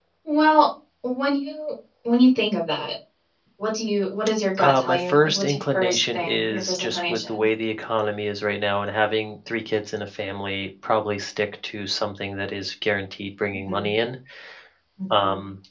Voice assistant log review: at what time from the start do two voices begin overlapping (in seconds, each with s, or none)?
4.6 s